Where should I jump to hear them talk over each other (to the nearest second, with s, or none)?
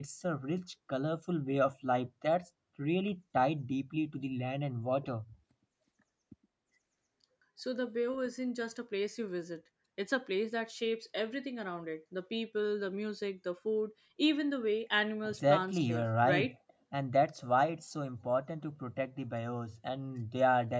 15 s